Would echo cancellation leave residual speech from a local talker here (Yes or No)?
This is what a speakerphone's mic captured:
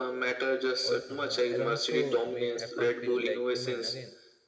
Yes